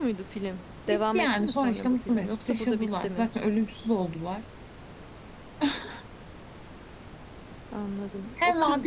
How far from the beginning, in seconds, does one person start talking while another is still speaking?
1 s

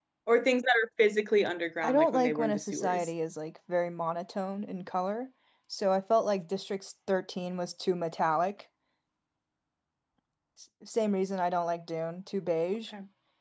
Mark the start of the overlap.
2 s

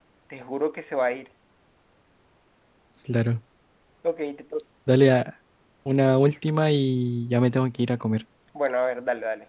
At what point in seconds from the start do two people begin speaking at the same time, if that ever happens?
none

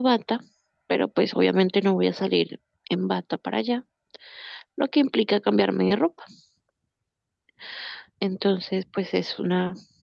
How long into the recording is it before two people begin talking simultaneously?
none

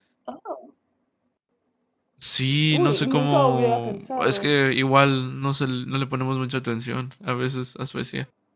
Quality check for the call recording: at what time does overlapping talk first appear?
3 s

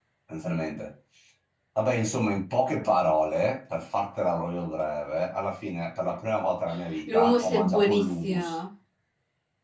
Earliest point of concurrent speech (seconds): 7 s

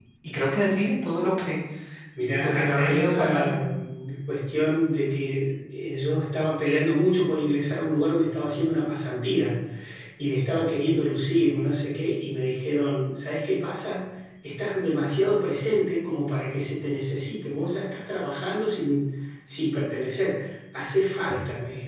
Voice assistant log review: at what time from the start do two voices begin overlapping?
2 s

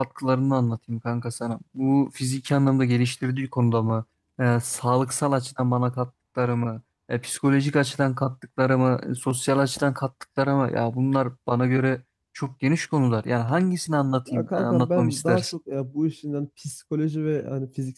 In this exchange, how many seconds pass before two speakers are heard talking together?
14 s

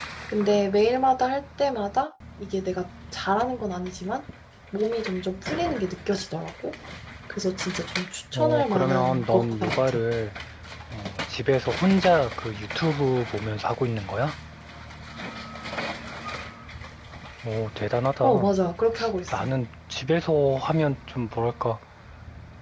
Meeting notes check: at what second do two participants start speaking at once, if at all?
8 s

